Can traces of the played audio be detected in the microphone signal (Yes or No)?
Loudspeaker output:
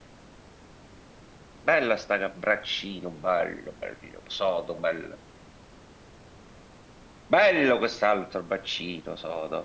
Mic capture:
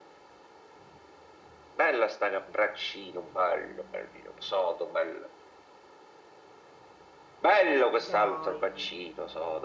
Yes